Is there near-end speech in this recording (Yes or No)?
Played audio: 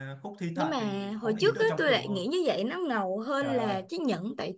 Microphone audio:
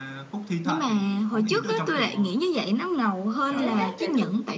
Yes